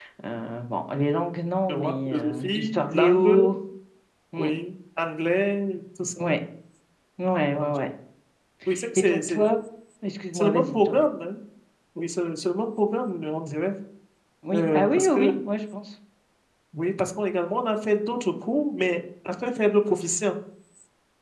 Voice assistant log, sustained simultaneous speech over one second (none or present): present